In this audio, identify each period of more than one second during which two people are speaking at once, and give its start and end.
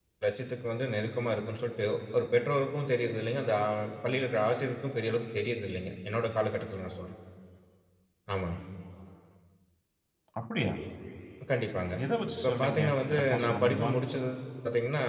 12.4-13.9

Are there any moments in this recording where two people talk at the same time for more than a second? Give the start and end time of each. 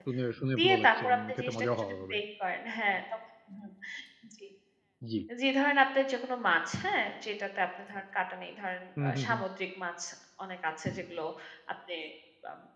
0.6-2.1

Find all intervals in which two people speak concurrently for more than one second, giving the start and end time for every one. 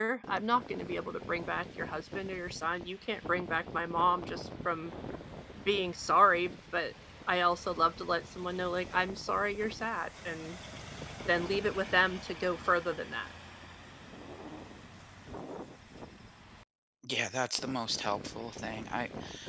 none

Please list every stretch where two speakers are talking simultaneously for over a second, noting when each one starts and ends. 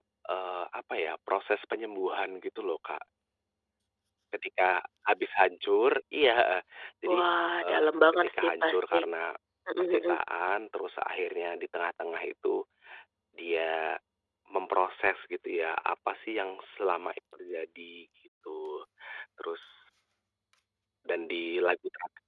7.6-9.0

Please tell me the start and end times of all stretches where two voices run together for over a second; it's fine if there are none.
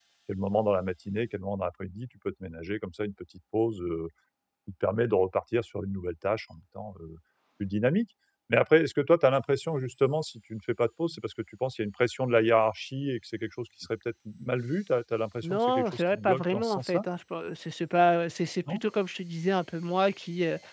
15.4-17.0

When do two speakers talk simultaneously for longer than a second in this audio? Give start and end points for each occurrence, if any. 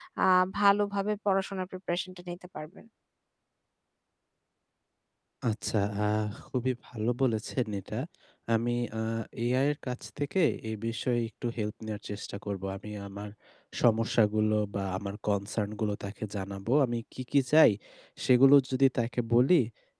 none

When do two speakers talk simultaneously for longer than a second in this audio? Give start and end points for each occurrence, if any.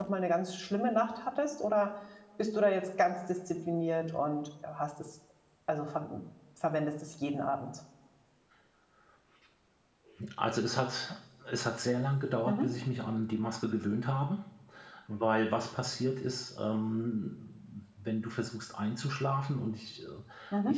none

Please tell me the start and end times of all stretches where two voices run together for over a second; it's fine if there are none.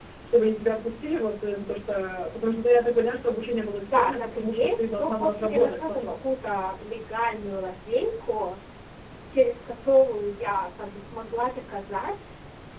3.8-6.1

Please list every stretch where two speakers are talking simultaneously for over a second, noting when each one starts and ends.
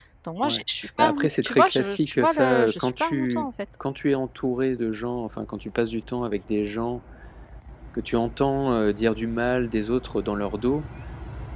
1.0-3.5

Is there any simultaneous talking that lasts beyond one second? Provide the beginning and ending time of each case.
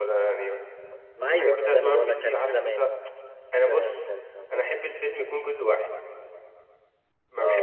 1.3-2.9

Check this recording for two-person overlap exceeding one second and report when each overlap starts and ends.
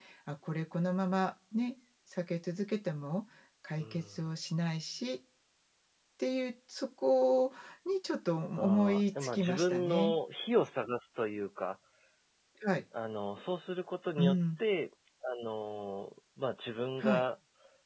8.6-10.1

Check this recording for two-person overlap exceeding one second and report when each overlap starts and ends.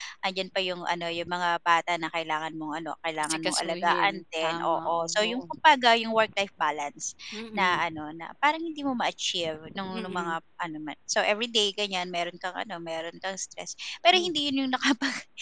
3.3-5.4

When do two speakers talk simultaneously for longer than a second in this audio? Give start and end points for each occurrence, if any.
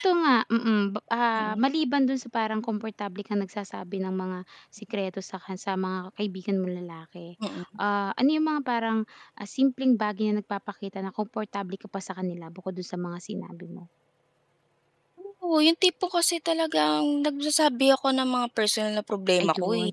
none

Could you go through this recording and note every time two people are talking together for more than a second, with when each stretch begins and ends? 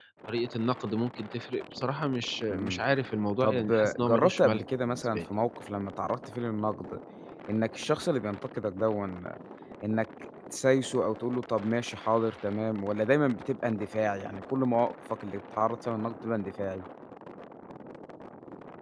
3.4-5.2

